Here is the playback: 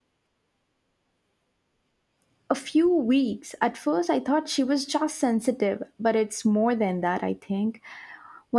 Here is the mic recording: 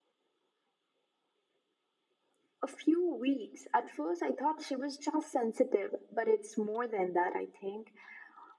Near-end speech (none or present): none